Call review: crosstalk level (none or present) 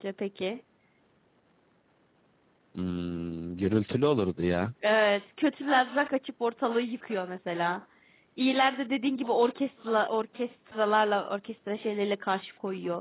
none